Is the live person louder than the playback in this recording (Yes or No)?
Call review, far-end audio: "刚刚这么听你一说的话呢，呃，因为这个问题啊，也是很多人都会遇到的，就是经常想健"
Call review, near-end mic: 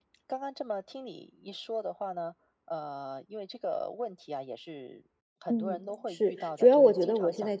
Yes